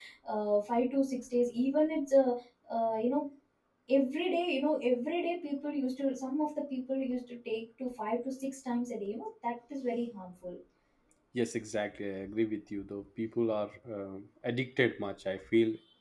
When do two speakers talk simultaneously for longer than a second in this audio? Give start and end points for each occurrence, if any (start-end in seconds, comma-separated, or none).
none